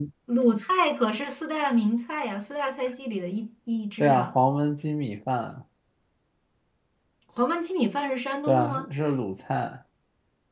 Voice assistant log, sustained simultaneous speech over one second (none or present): none